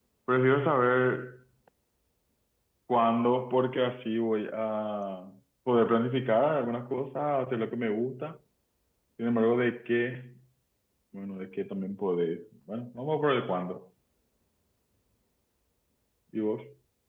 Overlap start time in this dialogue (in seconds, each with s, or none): none